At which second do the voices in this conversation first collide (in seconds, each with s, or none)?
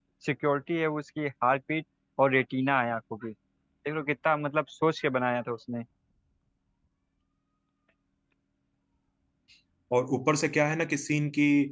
none